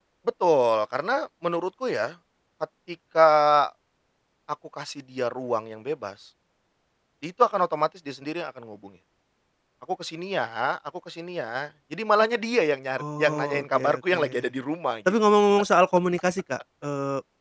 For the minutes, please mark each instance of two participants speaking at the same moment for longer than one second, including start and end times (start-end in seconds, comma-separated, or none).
13.0-14.2